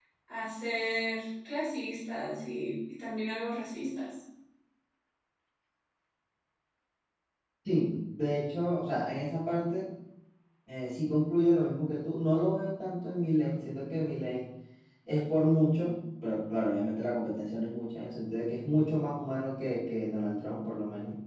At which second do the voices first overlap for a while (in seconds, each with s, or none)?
none